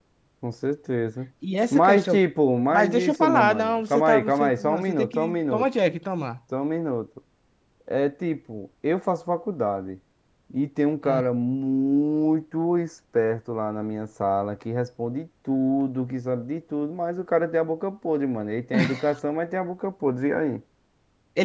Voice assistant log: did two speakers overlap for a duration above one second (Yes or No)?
Yes